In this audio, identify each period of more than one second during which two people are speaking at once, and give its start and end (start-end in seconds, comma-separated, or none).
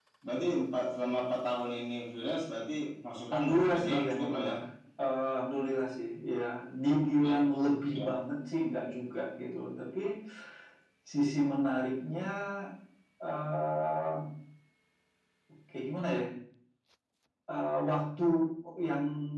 3.3-4.5